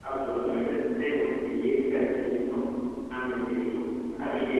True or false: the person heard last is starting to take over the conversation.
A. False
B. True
A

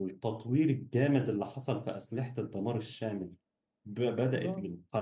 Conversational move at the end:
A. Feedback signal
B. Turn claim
A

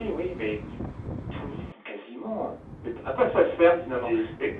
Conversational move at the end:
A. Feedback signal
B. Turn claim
A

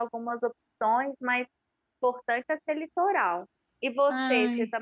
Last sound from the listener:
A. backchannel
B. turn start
A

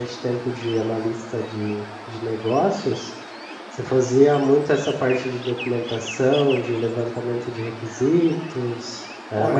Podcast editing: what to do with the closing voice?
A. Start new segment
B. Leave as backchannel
A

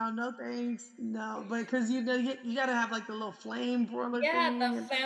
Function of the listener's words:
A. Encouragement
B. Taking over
B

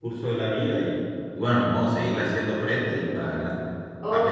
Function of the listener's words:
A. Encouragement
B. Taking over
B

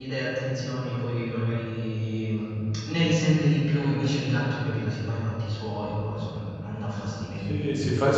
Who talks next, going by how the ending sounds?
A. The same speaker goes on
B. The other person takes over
B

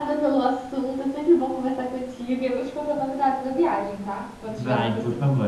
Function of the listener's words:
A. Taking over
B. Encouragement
A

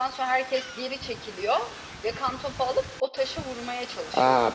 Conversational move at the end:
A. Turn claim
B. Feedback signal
A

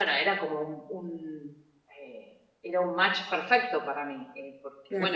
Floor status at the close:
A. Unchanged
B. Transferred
A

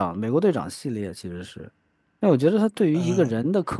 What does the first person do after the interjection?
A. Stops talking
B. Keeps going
B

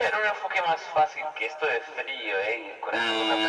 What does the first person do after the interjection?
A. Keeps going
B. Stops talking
B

